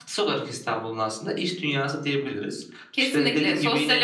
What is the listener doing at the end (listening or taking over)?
taking over